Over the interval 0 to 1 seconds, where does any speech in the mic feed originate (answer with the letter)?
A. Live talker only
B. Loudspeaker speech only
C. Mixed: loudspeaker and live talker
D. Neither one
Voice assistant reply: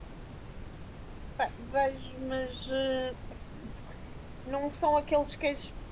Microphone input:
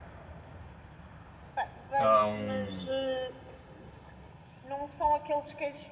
D